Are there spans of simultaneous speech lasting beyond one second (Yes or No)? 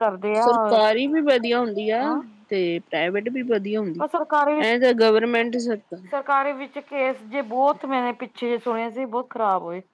No